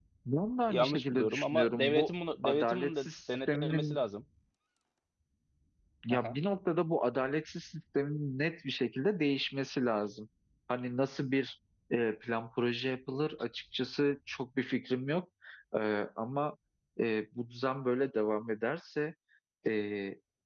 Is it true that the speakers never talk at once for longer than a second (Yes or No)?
No